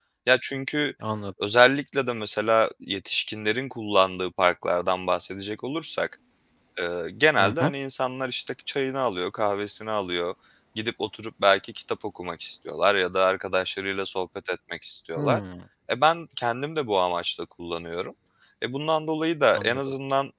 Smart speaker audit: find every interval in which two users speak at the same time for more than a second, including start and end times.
none

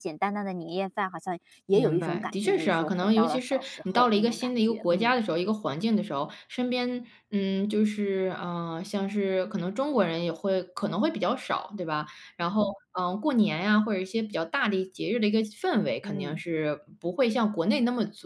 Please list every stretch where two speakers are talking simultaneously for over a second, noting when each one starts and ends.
1.7-5.1

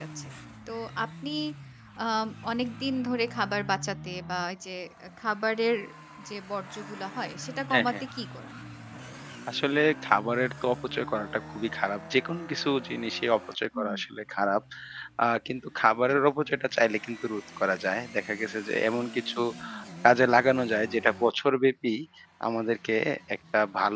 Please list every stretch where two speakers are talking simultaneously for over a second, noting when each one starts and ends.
none

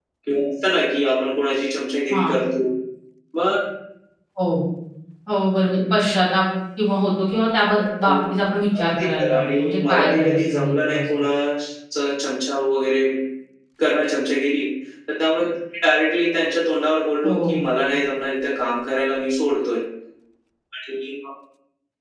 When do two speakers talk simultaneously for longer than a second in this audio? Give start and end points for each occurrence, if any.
8.8-11.0

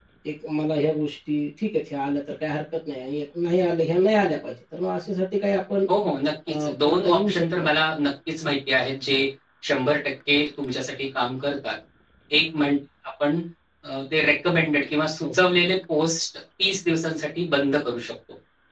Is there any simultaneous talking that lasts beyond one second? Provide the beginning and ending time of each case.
6.5-7.9

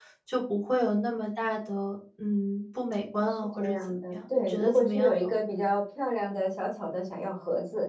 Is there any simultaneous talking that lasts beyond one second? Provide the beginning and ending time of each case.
3.2-5.3

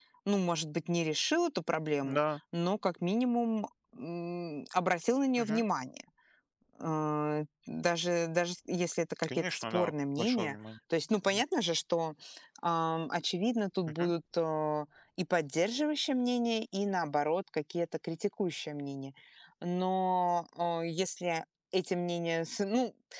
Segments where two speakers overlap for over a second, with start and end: 9.3-10.6

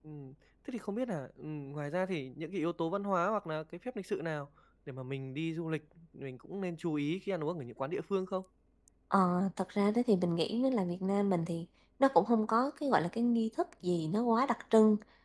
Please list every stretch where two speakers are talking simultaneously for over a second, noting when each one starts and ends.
none

